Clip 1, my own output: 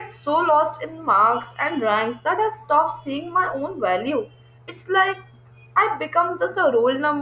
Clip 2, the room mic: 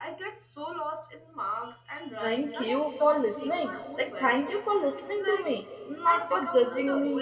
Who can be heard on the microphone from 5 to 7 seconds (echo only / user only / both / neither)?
both